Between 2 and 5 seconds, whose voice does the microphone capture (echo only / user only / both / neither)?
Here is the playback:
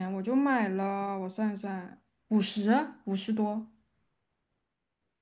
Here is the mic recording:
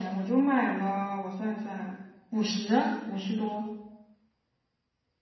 echo only